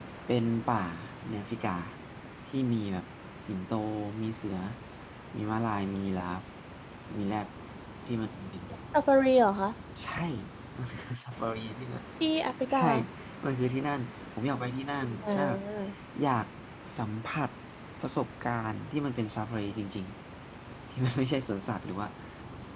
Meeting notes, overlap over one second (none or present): none